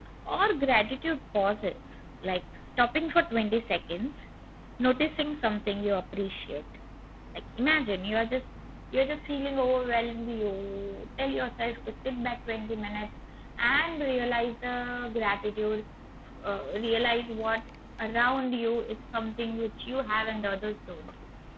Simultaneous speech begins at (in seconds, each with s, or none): none